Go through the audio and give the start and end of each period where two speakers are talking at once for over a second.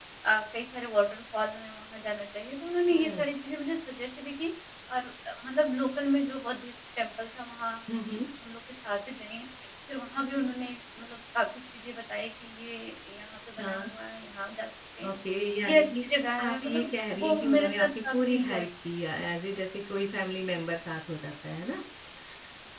15.6-18.6

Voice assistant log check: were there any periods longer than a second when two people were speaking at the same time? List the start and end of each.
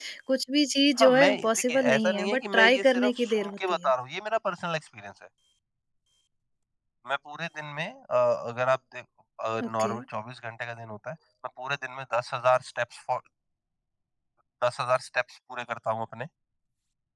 1.0-3.9

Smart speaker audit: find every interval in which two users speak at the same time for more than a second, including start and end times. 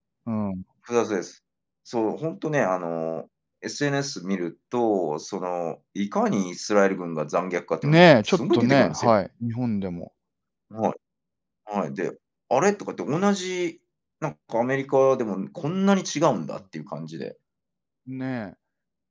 7.8-9.2

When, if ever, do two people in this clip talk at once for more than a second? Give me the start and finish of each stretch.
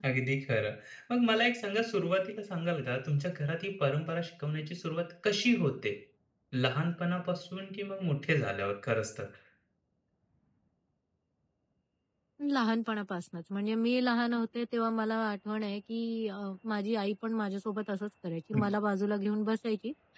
none

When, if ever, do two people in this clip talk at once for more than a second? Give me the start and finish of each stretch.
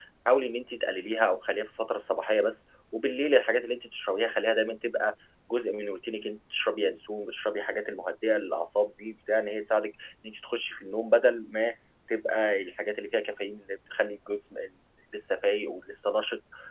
none

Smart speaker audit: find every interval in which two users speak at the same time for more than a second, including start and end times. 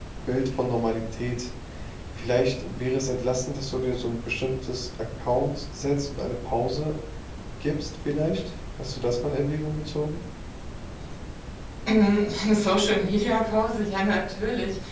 none

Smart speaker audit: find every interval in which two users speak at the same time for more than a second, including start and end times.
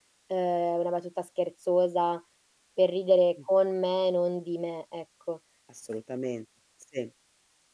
none

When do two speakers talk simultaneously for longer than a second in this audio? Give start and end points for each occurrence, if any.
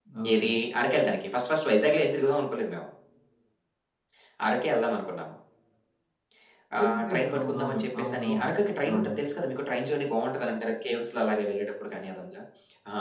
6.8-8.5

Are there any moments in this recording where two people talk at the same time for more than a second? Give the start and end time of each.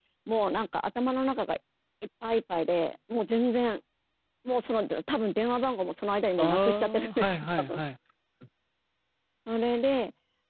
6.4-7.8

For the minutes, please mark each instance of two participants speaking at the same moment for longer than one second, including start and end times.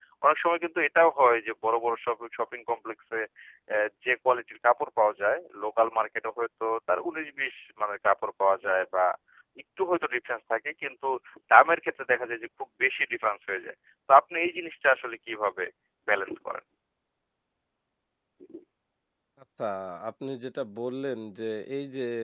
none

